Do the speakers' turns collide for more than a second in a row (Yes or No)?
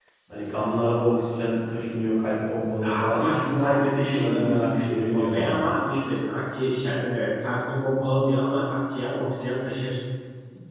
Yes